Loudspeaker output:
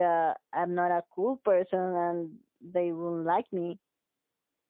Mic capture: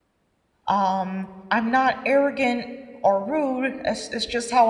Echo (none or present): none